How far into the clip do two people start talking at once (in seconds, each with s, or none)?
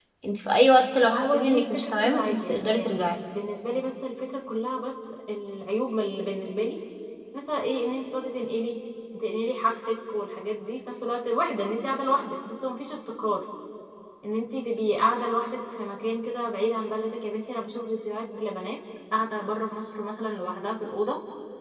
1.1 s